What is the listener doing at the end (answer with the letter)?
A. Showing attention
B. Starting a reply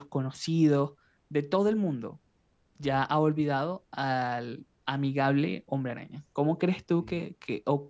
A